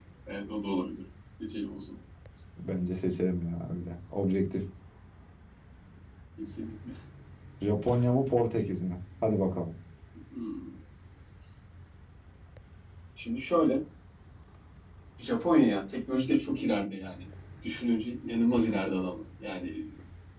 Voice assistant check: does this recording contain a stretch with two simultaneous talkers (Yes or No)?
No